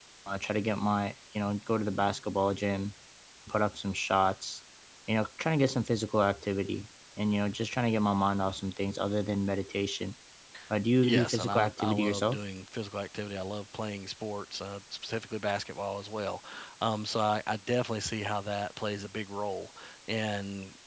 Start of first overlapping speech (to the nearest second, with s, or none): 11 s